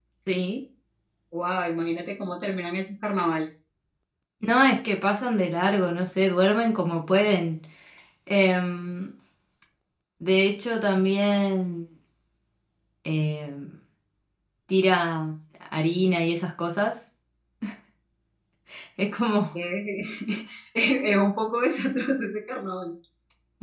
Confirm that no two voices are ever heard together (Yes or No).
Yes